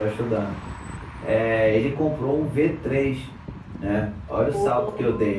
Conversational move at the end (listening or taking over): listening